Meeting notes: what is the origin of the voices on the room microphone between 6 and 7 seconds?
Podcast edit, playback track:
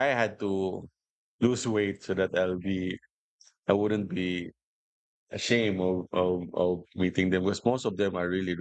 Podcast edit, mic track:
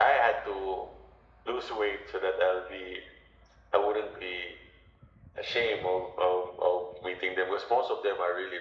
echo only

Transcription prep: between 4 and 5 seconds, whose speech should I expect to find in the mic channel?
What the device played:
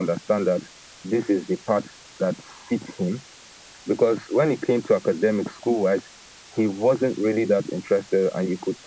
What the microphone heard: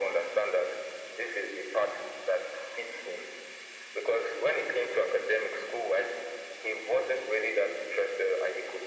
echo only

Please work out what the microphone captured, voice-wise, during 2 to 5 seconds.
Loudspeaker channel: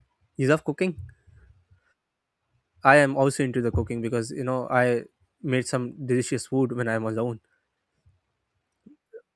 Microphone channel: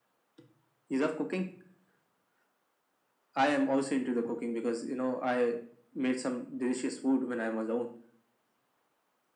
echo only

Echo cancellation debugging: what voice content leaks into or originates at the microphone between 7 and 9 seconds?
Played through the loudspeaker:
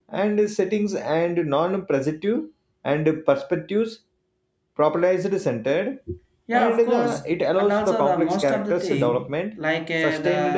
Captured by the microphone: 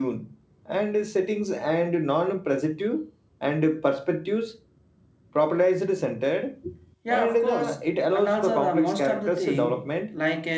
echo only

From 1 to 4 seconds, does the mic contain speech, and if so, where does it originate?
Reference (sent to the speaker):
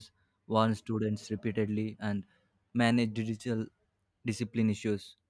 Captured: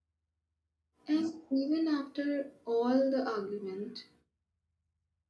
user only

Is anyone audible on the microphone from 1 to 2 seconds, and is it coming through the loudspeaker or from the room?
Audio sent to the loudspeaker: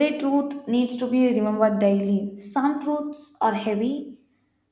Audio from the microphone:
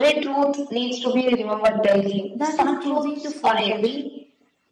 echo only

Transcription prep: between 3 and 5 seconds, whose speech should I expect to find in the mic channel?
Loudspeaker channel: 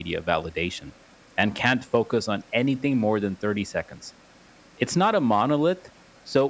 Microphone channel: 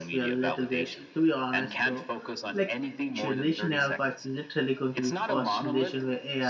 both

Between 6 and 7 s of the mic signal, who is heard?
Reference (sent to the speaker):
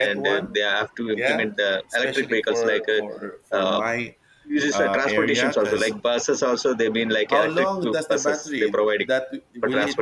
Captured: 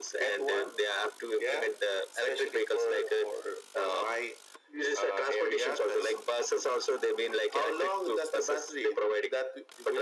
echo only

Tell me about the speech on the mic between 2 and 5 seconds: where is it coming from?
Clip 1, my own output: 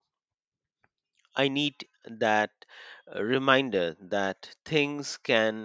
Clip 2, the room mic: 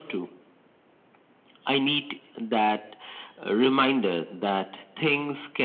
echo only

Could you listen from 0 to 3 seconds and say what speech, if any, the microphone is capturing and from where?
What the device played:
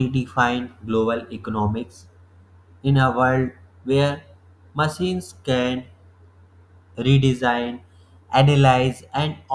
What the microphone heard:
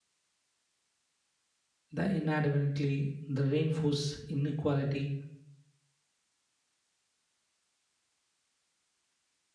user only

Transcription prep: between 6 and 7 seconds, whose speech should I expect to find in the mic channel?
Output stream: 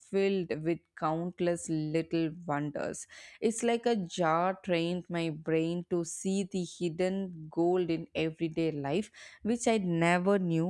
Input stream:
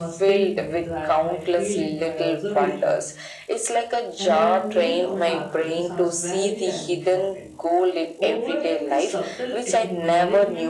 both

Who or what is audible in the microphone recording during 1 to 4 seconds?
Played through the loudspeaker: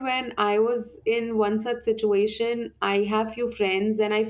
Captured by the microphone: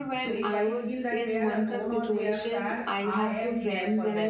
both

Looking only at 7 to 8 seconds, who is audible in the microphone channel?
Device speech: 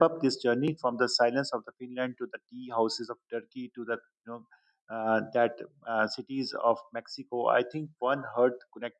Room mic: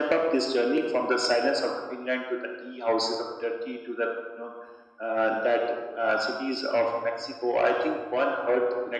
echo only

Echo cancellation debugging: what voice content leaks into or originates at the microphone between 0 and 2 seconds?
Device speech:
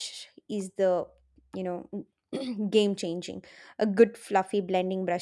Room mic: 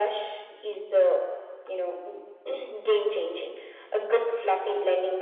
echo only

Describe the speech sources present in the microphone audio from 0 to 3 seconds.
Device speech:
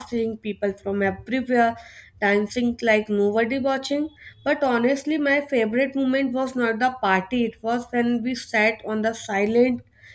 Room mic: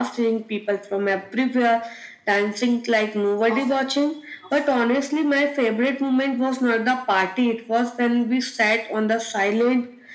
echo only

